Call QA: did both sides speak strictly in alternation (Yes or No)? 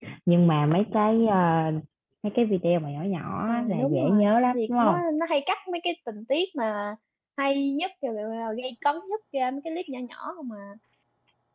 No